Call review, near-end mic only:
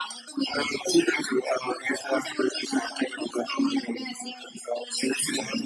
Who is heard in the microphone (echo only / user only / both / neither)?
echo only